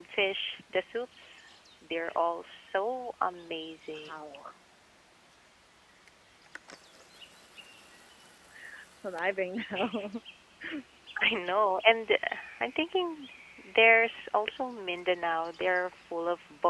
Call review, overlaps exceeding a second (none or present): none